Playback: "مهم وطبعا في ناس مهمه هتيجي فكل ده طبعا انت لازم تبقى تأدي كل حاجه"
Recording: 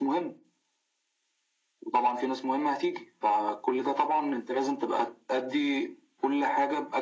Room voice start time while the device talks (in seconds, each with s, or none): none